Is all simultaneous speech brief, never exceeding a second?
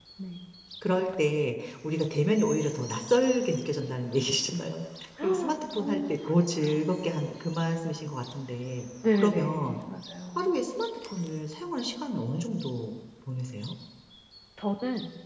No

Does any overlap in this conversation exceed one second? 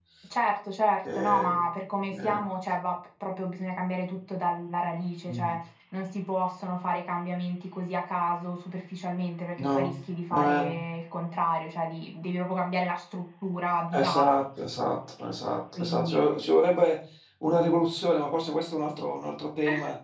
No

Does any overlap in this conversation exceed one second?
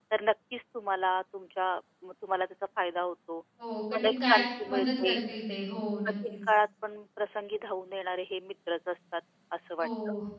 Yes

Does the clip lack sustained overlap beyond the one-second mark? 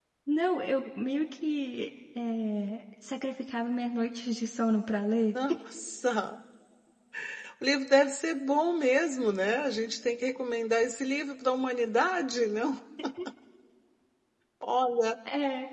Yes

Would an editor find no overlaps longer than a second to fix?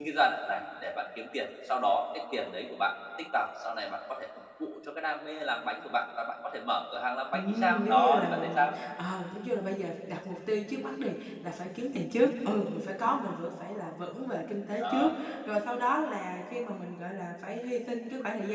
No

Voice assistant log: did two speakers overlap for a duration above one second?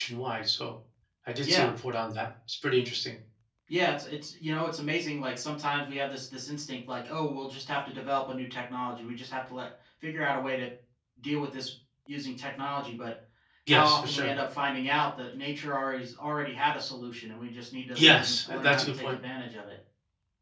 Yes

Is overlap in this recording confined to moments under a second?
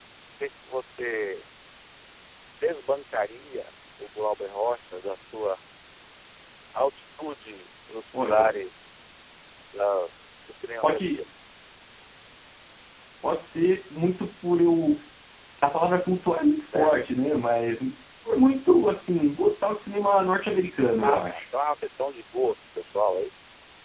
Yes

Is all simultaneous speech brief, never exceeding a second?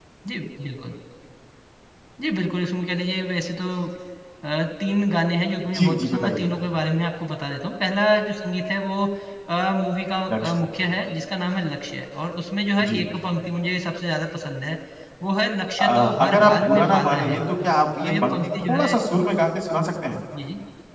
No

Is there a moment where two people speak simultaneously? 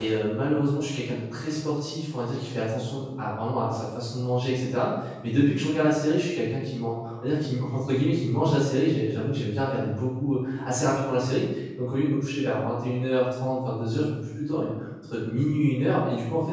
No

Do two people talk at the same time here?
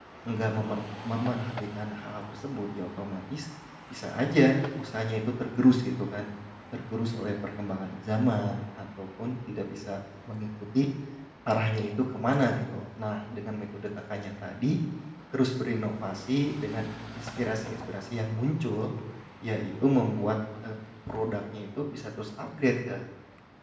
No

